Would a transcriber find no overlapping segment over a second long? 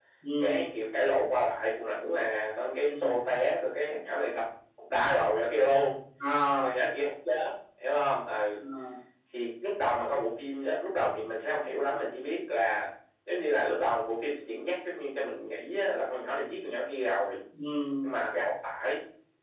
Yes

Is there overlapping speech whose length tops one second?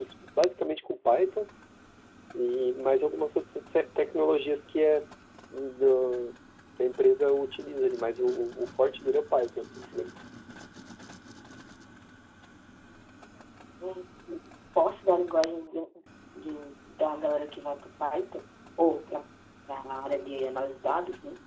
No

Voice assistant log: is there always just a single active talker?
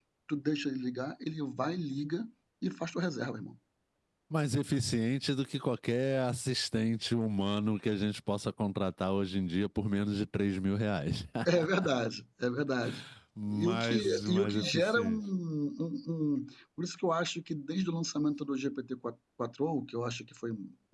No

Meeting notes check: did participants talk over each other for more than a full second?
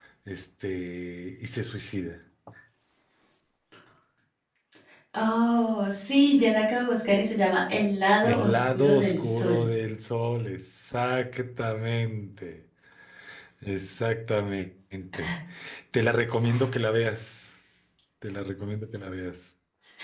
Yes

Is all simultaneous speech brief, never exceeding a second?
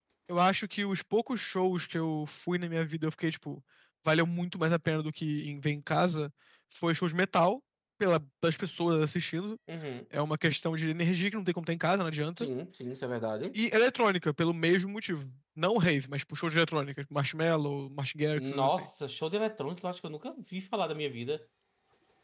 Yes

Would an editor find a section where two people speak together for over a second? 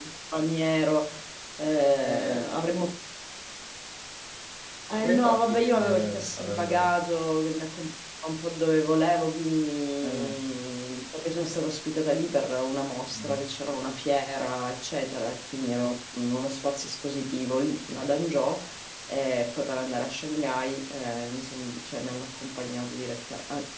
Yes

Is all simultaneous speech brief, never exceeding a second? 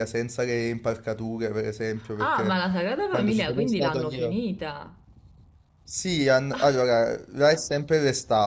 No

